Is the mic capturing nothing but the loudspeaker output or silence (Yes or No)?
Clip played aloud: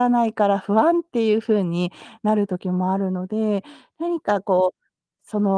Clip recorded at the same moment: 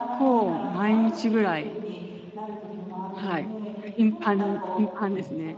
No